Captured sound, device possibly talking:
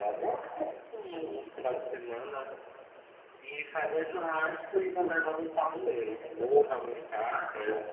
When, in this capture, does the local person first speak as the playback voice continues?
none

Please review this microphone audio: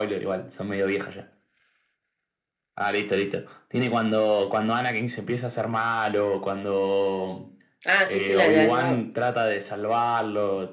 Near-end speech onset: 7.8 s

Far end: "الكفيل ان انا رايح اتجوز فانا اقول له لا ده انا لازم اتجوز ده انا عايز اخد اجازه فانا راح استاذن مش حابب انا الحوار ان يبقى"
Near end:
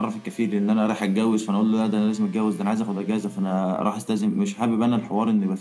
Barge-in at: none

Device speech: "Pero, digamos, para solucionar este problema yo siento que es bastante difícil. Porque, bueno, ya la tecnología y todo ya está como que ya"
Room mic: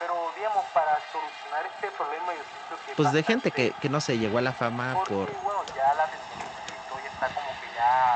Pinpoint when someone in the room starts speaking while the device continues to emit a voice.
2.9 s

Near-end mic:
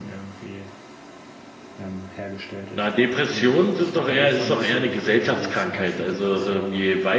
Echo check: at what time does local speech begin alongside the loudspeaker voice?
2.7 s

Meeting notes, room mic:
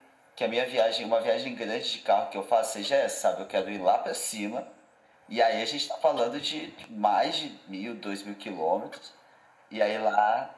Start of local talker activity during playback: none

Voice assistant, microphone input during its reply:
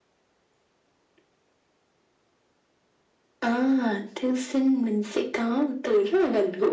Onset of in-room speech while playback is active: none

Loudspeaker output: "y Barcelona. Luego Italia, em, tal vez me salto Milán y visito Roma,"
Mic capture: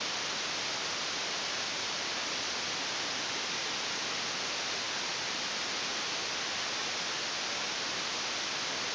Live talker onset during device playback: none

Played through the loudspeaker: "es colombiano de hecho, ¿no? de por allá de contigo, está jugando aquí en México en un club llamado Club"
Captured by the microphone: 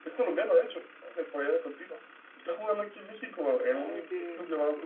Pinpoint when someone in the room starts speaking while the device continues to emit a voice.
3.7 s

